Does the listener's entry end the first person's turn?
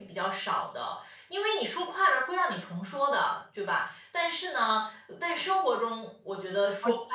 No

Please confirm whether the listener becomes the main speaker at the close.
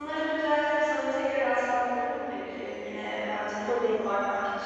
No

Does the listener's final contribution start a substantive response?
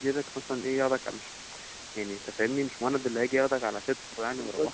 Yes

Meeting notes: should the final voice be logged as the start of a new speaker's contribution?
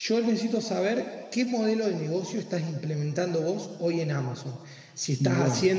No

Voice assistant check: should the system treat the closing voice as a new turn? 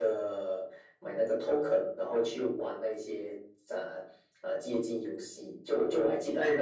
No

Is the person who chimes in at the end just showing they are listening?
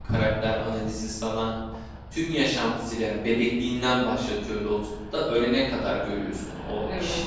Yes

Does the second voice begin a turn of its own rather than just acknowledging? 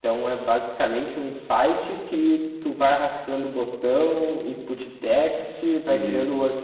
No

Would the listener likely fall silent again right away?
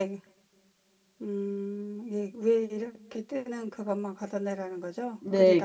No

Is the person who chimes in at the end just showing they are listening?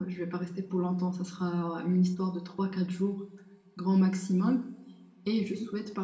Yes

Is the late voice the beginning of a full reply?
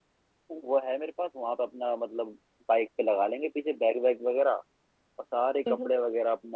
No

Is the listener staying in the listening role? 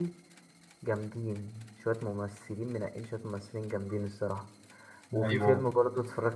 Yes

